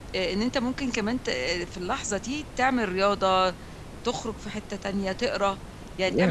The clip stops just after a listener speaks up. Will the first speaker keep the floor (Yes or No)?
Yes